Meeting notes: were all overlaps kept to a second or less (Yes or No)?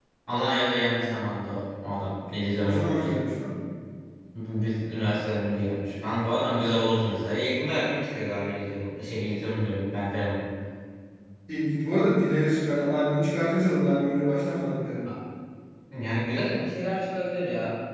Yes